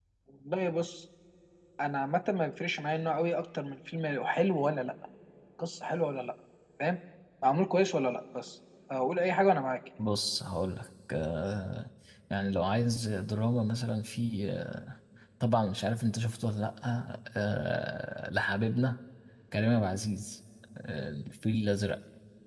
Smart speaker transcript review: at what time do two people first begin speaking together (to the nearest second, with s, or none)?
none